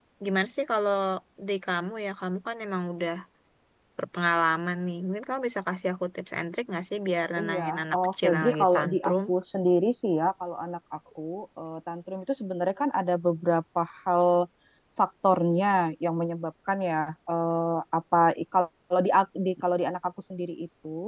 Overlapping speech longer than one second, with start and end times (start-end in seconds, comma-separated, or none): 7.4-9.1